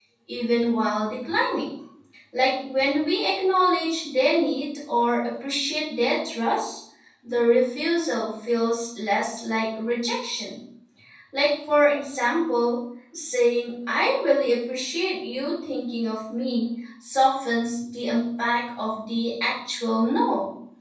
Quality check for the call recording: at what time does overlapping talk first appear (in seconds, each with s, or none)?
none